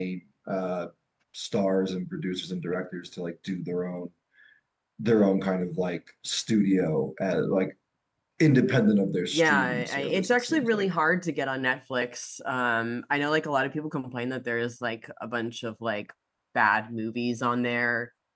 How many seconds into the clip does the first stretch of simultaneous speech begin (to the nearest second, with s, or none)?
9 s